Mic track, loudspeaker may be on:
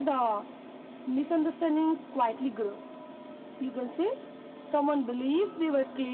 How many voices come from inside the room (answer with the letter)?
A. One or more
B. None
B